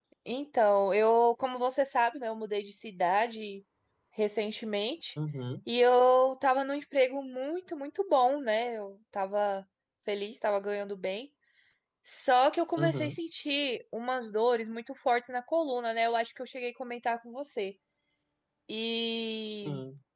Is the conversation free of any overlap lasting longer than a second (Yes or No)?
Yes